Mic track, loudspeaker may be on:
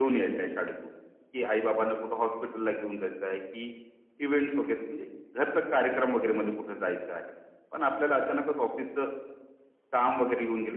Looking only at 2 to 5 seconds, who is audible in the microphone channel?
echo only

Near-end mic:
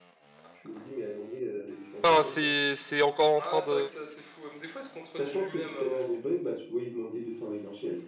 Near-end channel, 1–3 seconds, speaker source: both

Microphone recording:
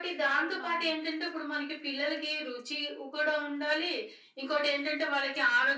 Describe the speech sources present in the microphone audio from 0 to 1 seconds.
both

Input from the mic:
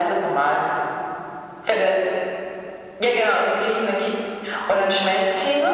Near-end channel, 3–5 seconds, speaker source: echo only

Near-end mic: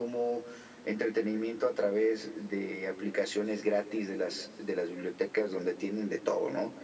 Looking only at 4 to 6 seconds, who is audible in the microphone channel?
echo only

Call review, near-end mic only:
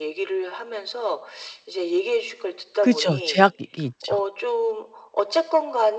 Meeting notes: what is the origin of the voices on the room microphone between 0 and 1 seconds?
echo only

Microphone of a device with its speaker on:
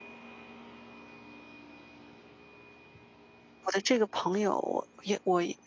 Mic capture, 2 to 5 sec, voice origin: user only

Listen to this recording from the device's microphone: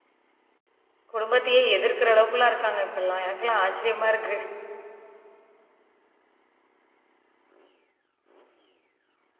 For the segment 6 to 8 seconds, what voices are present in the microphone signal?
neither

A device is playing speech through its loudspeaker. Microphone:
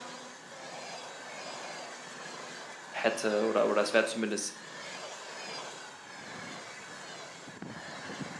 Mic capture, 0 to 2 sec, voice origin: neither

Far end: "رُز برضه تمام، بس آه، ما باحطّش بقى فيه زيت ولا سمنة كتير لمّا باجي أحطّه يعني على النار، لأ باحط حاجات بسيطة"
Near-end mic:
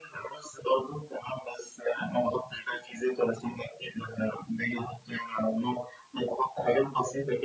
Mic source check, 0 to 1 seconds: echo only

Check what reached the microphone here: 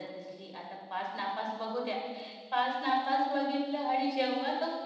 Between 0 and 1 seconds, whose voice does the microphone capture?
echo only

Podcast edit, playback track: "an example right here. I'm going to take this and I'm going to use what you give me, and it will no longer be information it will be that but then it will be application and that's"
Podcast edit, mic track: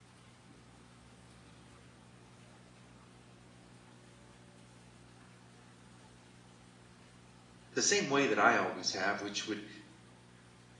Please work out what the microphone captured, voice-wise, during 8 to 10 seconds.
user only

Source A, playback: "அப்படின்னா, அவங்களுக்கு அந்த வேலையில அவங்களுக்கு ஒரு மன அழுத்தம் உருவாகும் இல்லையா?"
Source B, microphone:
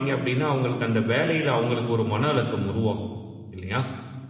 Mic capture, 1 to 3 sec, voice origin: echo only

